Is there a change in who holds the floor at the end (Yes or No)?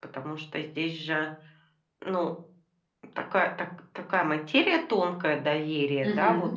No